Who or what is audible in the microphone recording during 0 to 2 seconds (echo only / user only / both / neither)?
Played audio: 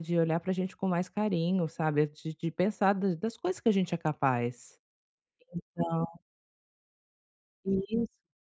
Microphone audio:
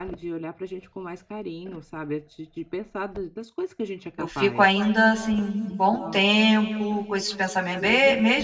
echo only